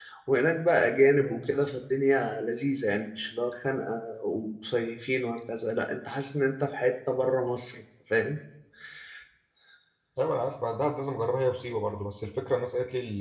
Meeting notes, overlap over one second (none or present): none